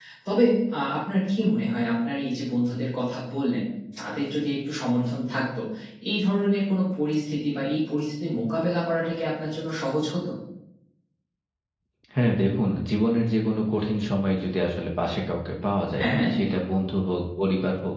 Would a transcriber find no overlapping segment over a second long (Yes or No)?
Yes